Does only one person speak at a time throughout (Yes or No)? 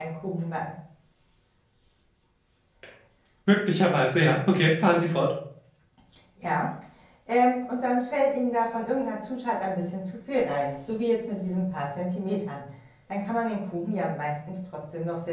Yes